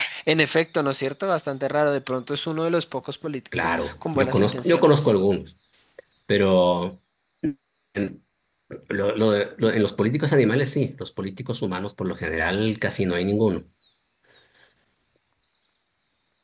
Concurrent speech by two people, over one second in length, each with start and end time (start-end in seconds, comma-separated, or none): 3.6-5.0